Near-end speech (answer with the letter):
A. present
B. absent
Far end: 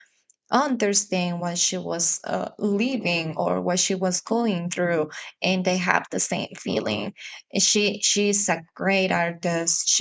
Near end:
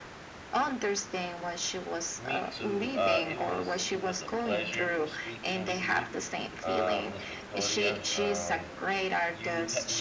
A